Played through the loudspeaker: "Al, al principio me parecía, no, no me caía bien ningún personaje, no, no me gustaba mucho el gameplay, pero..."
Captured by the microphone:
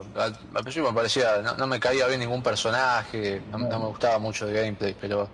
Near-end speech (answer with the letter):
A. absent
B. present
B